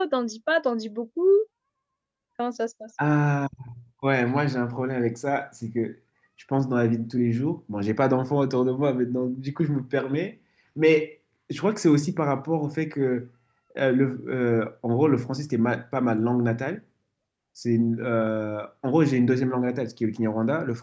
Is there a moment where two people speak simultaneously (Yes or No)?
No